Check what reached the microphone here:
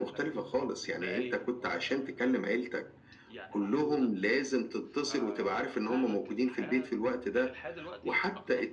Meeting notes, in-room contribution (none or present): present